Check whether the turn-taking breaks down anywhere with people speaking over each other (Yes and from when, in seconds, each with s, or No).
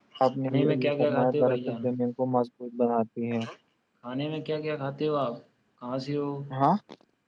Yes, from 0.5 s